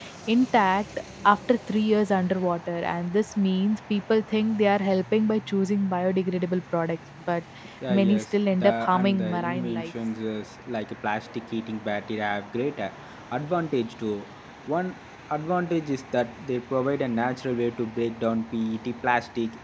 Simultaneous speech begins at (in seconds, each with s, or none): 7.9 s